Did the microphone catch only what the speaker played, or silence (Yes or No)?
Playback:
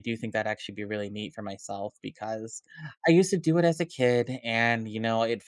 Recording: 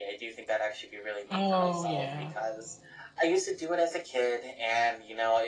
No